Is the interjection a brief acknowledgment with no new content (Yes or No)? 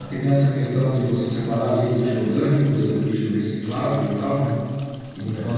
Yes